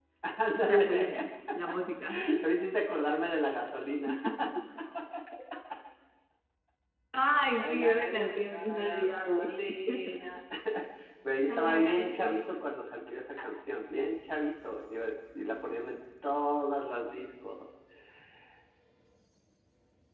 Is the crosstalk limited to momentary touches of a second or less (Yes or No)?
No